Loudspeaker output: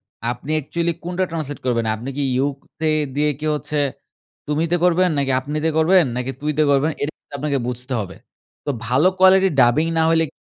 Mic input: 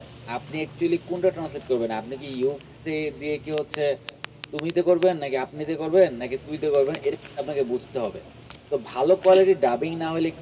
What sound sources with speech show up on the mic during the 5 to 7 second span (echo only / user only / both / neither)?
echo only